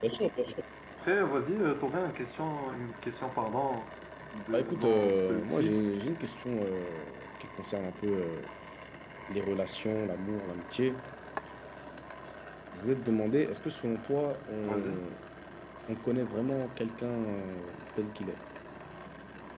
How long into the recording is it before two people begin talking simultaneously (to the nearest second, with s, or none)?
5 s